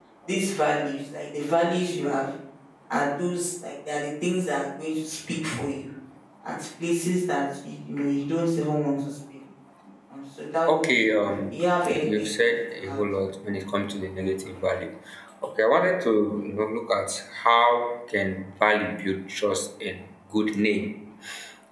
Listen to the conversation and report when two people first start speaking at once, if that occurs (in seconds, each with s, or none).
10.7 s